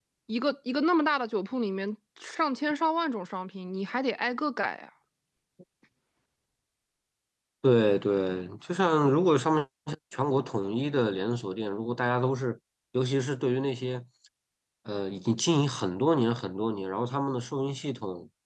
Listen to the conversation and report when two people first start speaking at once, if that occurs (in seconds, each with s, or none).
none